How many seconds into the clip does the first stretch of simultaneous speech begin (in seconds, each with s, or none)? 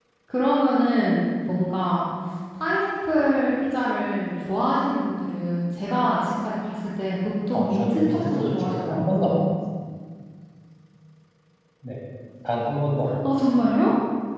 7.5 s